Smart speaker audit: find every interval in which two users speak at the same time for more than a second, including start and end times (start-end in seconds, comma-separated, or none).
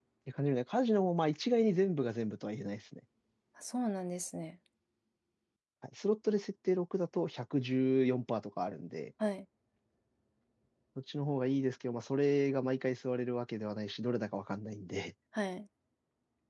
none